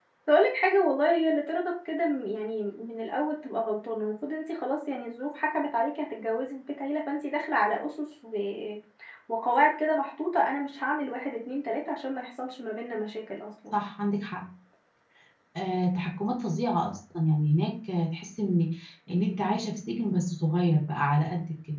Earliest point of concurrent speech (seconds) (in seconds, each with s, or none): none